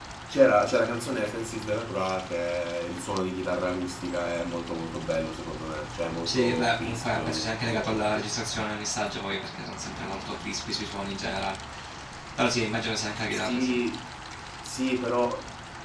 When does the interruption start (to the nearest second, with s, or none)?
6 s